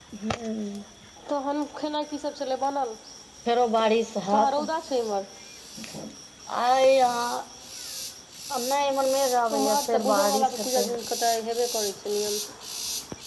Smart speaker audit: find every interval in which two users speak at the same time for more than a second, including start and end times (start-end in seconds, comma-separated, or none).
9.6-10.8